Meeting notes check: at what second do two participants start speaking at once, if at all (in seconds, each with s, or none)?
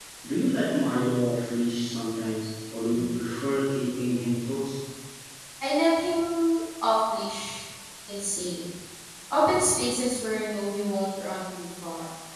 none